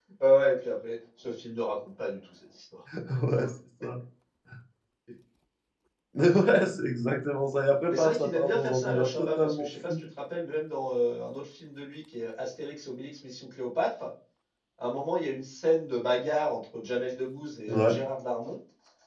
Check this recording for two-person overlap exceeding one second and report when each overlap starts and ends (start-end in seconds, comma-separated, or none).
7.9-9.9